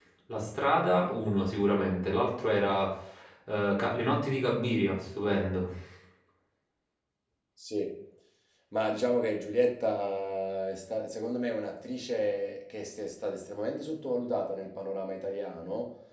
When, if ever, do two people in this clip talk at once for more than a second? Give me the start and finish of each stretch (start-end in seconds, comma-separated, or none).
none